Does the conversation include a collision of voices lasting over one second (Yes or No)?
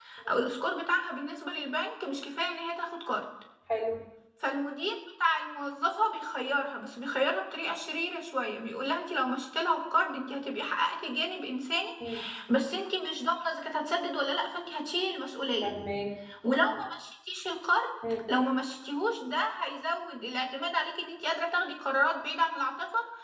No